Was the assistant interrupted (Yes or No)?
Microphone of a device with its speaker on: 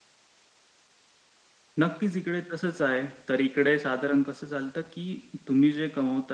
Yes